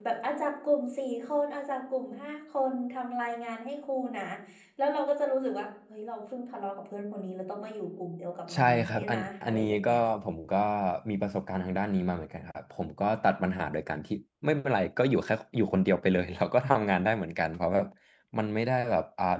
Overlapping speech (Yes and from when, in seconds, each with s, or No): Yes, from 8.5 s